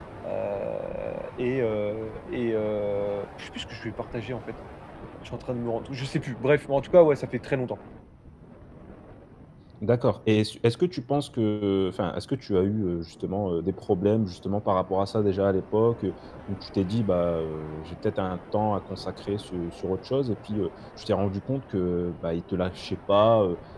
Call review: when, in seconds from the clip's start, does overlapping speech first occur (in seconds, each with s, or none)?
none